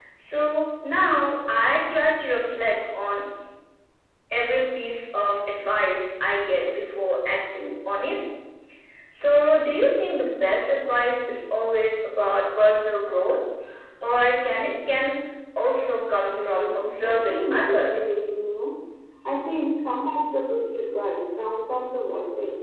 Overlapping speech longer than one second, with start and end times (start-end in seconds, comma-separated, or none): 16.3-18.1